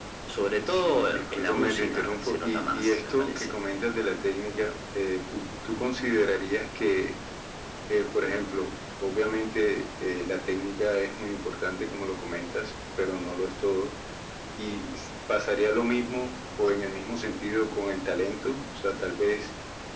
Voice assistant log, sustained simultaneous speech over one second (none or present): present